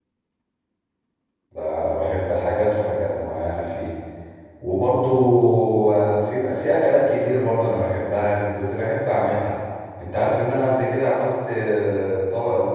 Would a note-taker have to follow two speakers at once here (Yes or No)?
No